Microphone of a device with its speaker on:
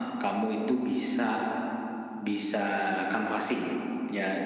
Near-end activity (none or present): none